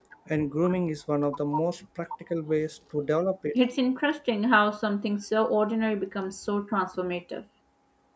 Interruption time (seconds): none

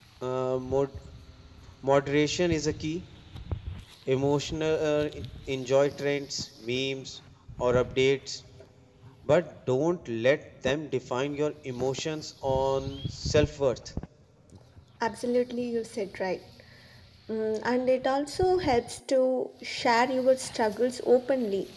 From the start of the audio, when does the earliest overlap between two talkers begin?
none

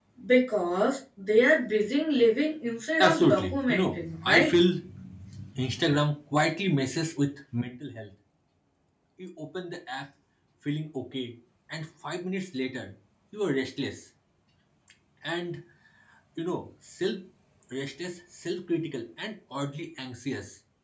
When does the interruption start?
3.0 s

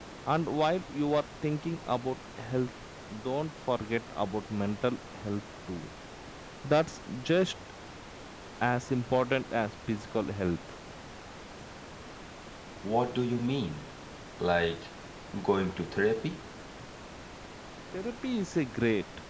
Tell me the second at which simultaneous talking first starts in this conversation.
none

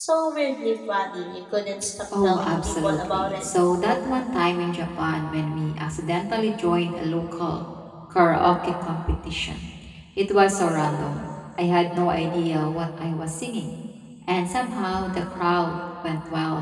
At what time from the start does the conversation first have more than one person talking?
2.1 s

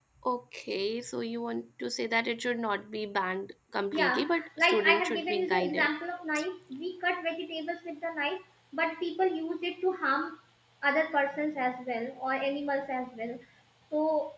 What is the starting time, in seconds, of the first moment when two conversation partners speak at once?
3.9 s

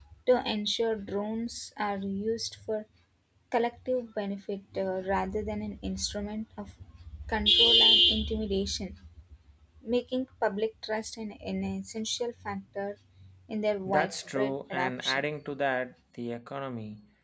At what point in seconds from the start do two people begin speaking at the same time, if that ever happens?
13.9 s

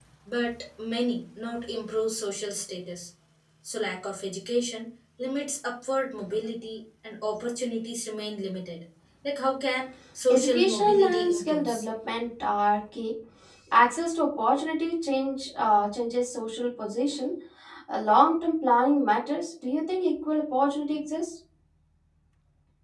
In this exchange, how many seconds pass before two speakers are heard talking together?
10.3 s

